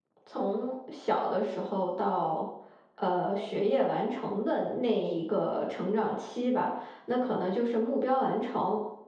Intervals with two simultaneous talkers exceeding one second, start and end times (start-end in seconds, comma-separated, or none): none